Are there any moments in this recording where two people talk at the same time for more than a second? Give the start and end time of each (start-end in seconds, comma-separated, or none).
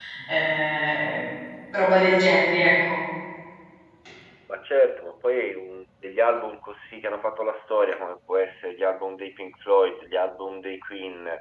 none